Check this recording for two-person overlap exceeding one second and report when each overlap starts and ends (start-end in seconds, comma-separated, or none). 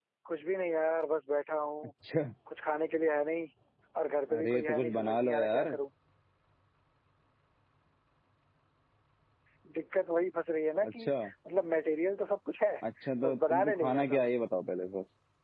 4.4-5.7, 13.2-14.4